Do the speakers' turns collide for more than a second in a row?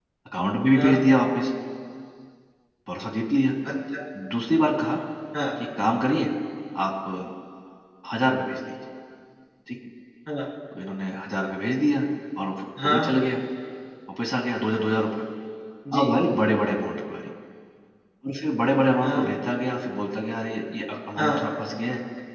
No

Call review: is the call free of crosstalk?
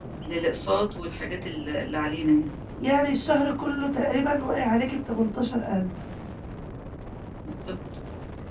Yes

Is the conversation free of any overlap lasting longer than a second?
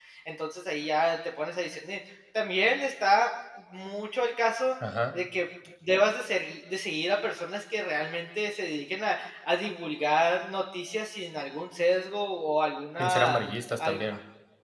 Yes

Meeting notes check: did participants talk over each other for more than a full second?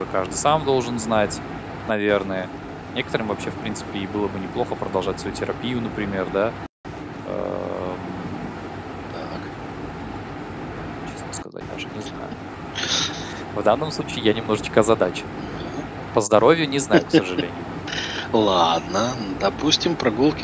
No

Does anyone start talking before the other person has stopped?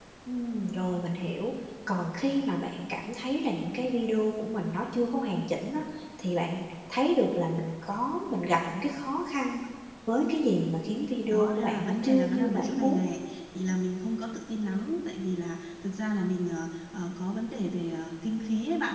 Yes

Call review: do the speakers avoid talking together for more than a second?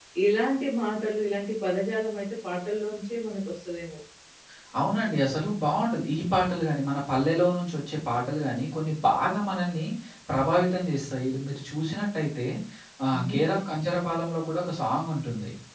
Yes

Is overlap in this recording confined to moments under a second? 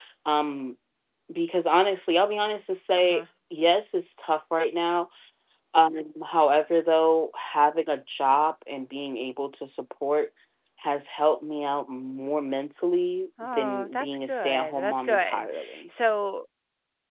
No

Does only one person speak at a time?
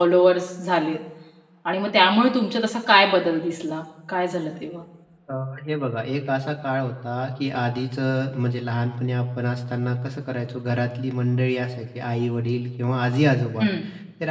Yes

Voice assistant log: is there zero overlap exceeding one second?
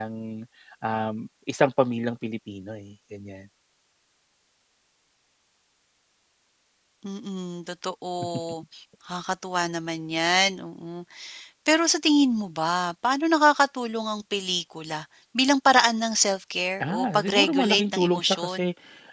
No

